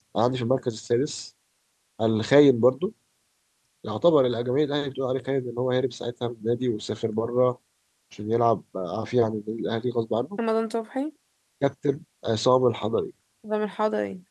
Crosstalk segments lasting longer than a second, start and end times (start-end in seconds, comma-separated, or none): none